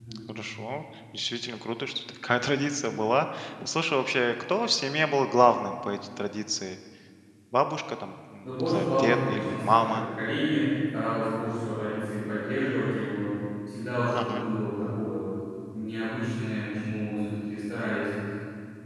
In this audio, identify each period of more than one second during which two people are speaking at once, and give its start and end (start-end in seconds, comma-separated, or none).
8.4-10.0